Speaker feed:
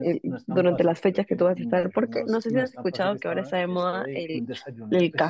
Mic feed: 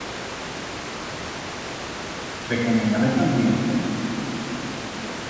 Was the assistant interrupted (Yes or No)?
Yes